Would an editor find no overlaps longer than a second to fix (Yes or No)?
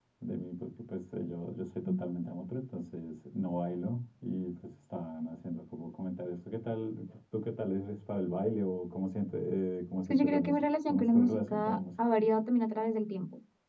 No